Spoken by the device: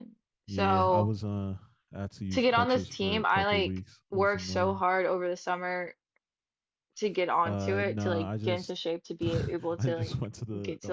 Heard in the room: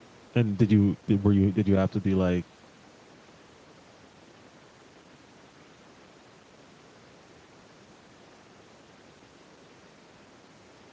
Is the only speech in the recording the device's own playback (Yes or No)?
No